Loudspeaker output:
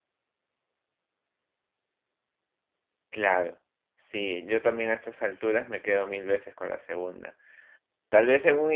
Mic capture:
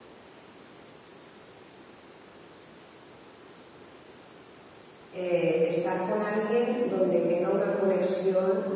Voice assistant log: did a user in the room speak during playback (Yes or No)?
Yes